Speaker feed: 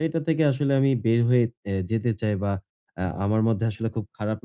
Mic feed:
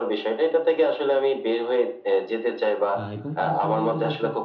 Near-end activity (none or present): present